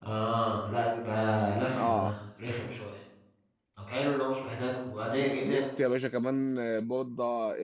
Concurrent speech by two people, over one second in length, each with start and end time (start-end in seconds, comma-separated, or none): none